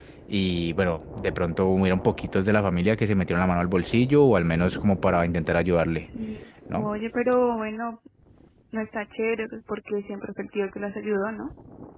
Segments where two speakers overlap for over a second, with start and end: none

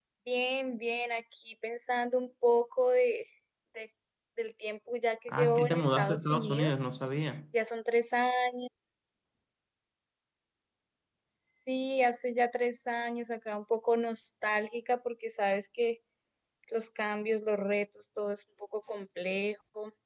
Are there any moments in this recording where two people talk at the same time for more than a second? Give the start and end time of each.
5.3-6.8

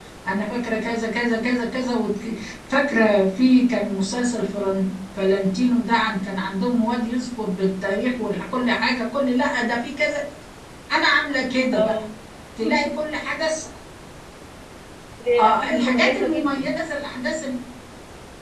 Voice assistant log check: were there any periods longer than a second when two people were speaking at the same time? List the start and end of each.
15.4-16.7

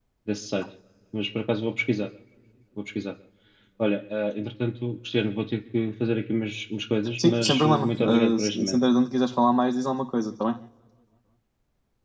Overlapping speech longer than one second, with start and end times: 7.2-8.8

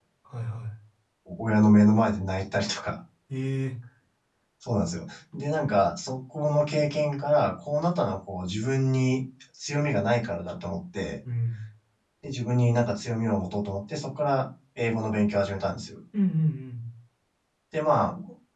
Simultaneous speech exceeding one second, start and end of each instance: none

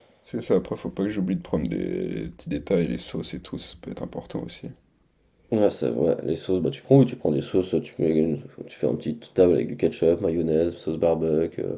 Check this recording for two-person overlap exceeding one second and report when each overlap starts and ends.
none

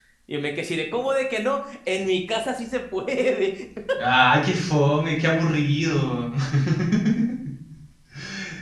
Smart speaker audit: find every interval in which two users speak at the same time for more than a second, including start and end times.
none

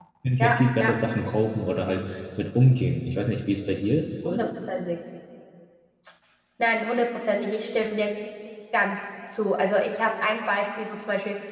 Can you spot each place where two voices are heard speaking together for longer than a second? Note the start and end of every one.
none

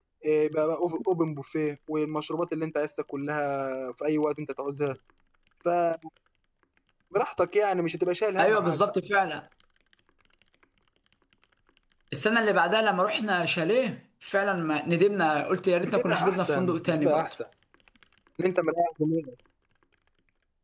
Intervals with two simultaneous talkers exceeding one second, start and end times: 15.8-17.2

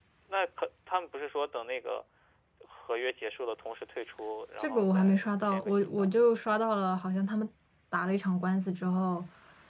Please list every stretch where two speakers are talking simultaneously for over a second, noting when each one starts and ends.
4.6-6.1

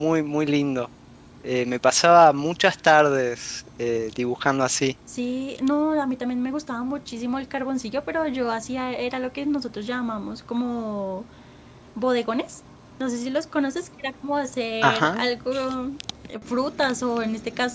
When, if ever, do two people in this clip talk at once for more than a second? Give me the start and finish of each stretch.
none

